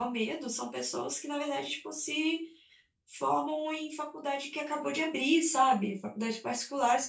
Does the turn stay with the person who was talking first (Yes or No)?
Yes